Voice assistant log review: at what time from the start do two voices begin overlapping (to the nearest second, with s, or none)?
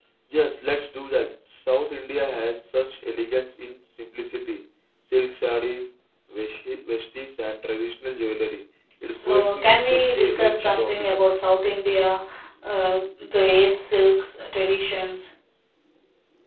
9 s